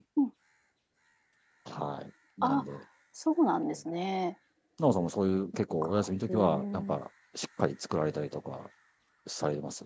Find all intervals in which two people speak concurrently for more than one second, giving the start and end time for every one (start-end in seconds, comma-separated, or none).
5.5-7.0